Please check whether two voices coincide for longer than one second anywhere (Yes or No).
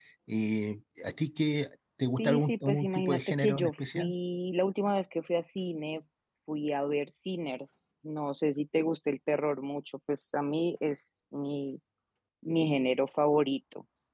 Yes